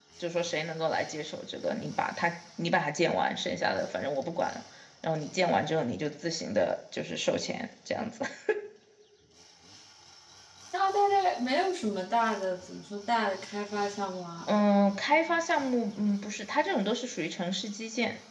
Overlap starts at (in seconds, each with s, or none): none